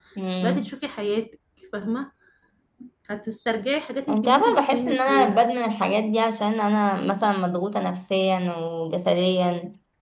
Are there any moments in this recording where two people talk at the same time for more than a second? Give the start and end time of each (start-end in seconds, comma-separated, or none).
4.1-5.4